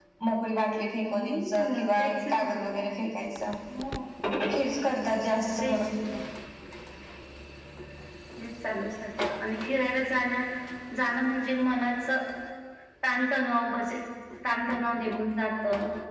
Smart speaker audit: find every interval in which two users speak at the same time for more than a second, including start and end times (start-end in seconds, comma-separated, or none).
1.0-2.5